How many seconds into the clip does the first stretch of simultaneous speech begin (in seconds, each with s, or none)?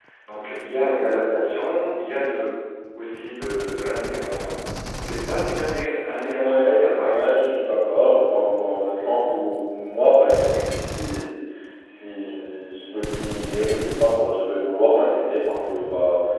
6.1 s